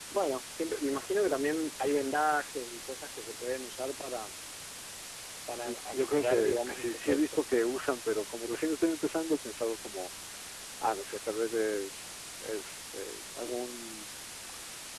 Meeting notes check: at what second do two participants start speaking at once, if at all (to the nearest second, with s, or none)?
6 s